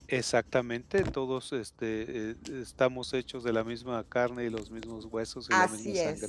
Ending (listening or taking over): taking over